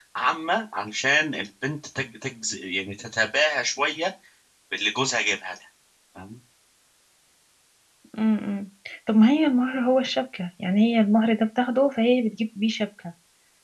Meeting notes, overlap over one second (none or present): none